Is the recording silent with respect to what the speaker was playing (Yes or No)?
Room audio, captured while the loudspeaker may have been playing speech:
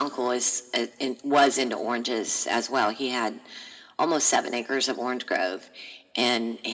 No